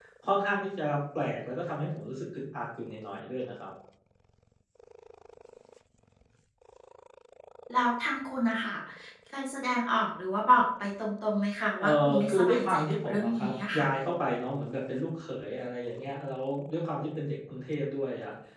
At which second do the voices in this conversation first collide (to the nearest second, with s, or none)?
12 s